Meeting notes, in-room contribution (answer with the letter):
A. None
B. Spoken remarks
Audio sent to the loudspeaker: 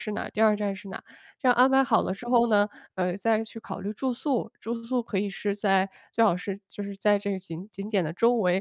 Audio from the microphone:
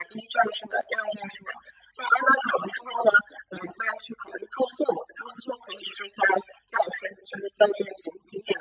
A